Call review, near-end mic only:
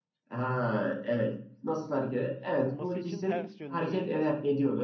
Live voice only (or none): Durması için ters yönde bir